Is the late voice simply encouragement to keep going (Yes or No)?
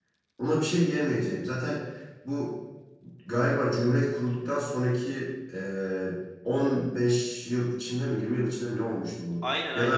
No